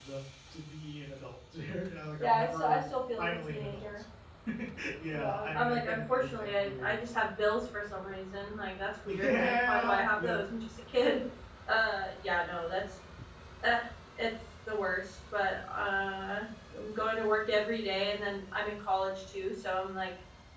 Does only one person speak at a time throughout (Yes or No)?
No